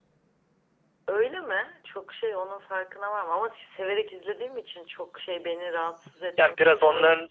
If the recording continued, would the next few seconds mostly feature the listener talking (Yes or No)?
Yes